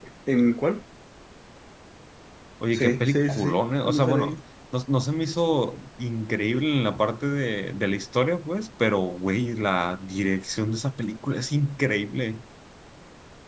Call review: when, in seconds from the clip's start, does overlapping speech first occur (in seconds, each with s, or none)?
2.7 s